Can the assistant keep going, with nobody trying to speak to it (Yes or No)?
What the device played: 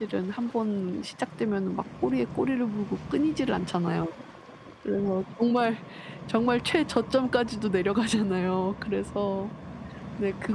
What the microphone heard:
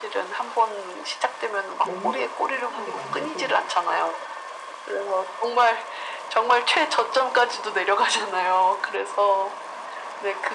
No